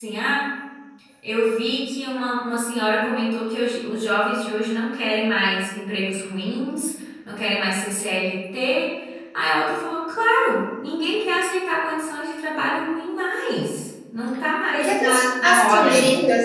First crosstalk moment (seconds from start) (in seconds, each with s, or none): 14.7 s